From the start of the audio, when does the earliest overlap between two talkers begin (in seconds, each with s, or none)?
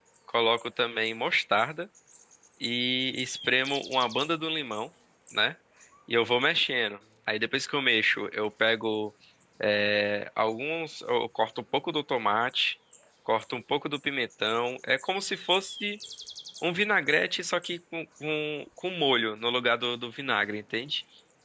none